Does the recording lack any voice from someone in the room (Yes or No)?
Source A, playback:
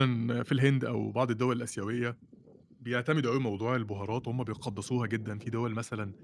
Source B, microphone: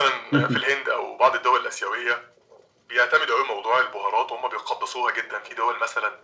No